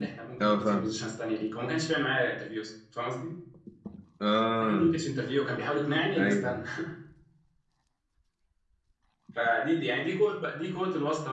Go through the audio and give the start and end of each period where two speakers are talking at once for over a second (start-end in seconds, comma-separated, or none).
none